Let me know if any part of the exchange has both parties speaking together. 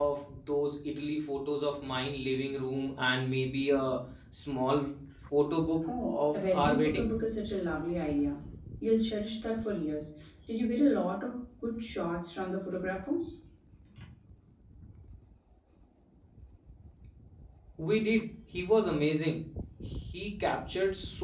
Yes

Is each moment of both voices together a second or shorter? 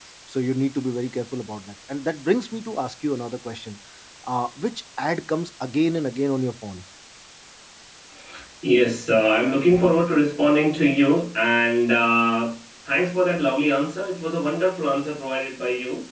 Yes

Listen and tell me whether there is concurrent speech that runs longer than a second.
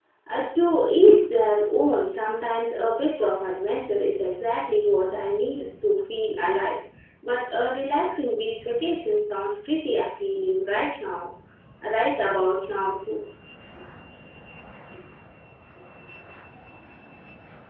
No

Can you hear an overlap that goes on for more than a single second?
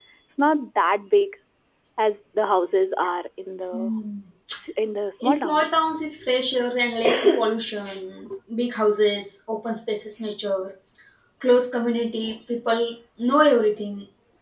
No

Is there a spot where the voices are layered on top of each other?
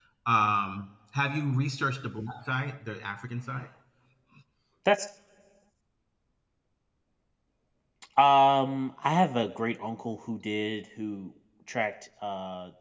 No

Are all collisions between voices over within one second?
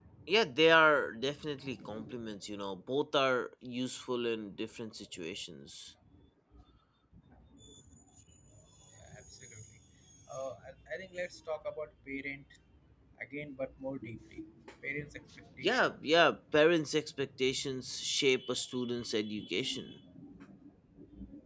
Yes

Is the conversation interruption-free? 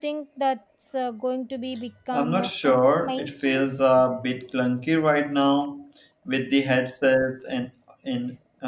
No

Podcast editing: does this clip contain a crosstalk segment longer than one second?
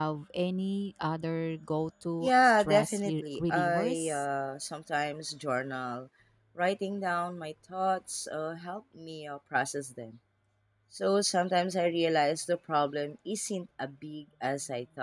Yes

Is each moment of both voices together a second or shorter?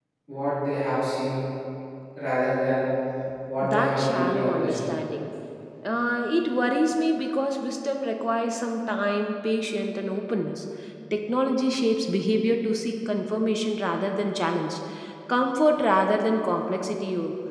No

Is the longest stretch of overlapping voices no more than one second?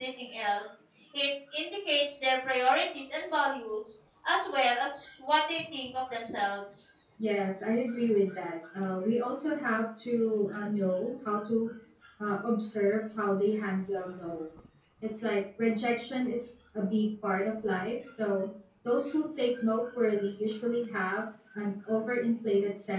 Yes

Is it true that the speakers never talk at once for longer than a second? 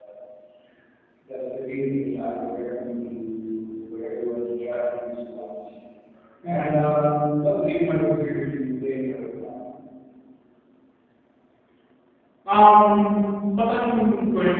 Yes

